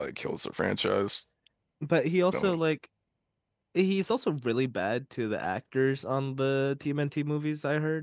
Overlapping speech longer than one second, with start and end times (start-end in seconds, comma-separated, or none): none